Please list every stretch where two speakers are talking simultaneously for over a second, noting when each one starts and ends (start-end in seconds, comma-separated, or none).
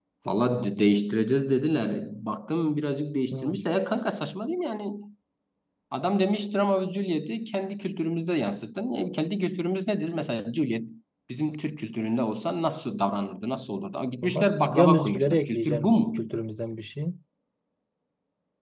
14.2-16.2